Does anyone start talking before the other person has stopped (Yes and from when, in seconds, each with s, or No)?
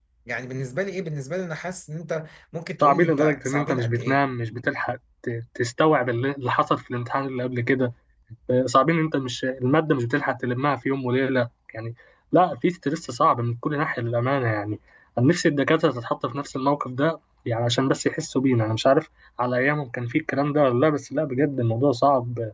Yes, from 2.8 s